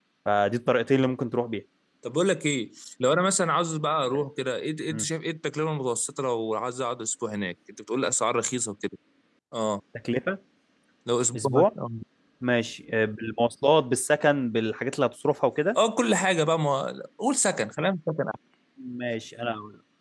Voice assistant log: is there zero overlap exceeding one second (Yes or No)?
Yes